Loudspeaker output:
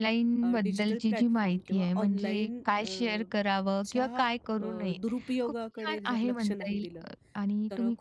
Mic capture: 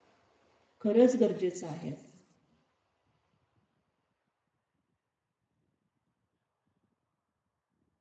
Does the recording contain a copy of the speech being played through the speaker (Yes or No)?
No